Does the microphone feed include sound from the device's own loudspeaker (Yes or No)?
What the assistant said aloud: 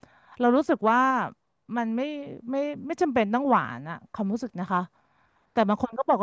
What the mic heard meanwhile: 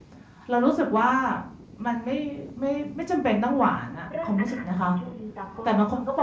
Yes